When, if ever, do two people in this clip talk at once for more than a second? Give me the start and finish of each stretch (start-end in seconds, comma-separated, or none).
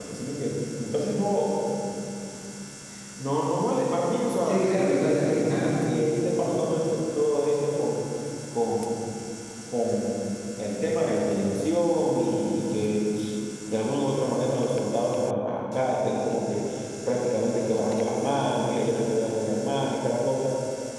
4.4-5.8